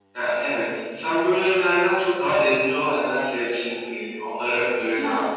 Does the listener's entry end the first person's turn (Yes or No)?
Yes